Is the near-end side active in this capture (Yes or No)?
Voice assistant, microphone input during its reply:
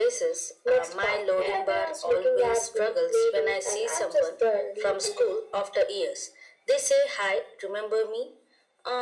No